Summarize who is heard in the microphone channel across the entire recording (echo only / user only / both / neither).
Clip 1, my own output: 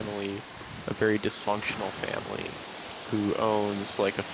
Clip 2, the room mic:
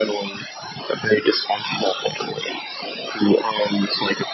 echo only